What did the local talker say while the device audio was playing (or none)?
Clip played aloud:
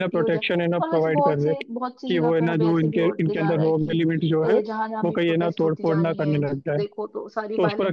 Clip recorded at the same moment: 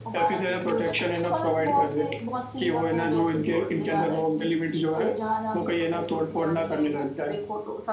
none